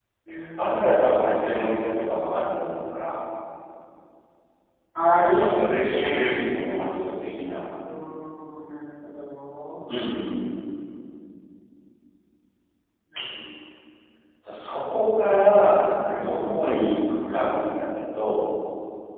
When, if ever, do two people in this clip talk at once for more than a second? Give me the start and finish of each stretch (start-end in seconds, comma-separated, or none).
5.2-6.4